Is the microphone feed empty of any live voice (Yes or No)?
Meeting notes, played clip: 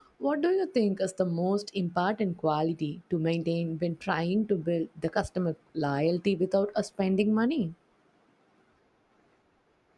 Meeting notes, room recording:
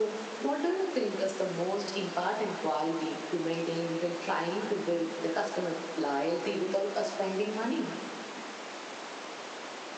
Yes